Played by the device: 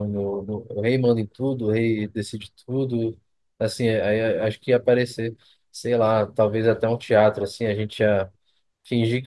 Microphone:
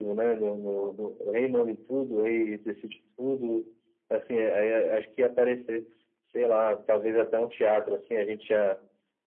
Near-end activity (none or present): none